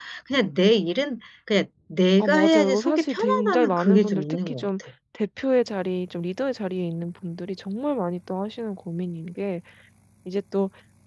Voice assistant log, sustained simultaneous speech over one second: present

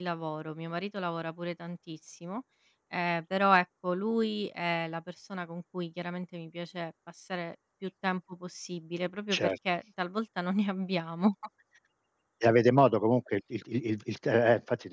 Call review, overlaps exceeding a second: none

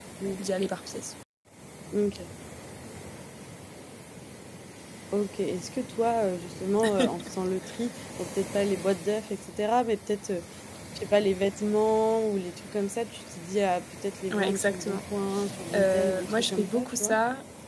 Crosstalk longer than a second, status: present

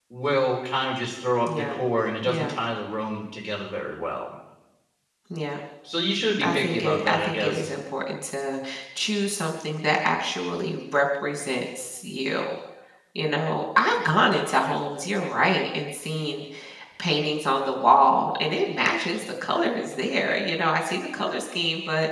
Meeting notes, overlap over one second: present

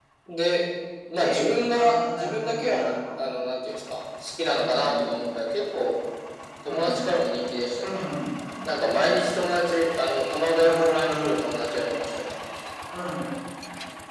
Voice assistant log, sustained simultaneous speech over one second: present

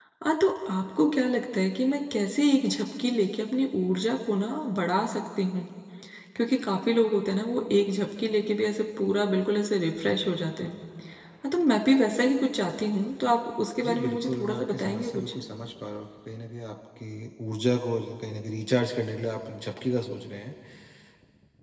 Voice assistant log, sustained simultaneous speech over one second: present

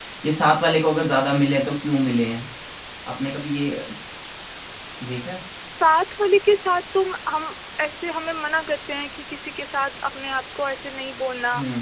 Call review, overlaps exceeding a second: none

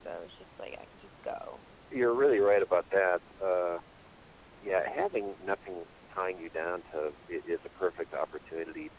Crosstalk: none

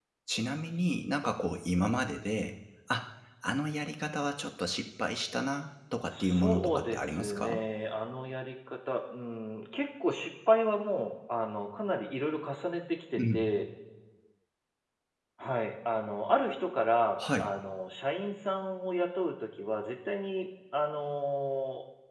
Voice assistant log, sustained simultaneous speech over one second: present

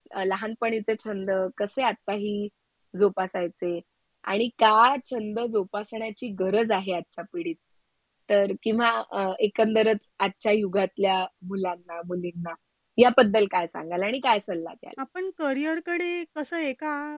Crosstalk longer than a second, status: none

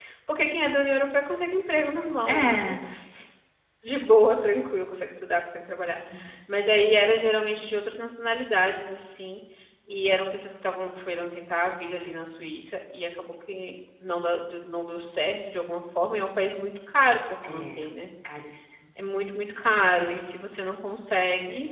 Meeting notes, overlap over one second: none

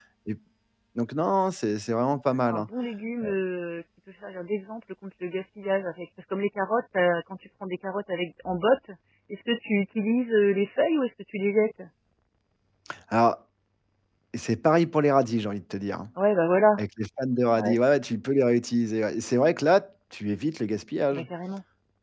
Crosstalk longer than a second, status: none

